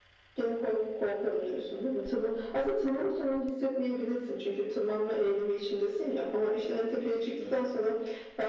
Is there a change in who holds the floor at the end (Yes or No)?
No